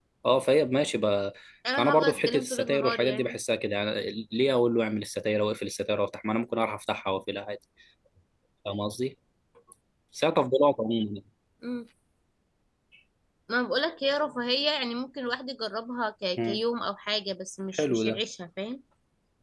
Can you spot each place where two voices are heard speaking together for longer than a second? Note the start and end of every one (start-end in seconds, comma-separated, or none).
1.8-3.4